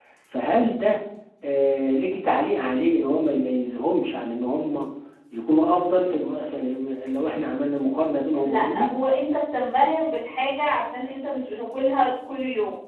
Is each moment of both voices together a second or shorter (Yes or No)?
Yes